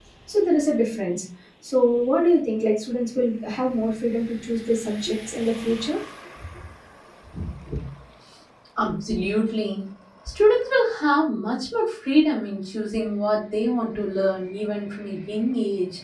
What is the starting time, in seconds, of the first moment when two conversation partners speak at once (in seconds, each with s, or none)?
none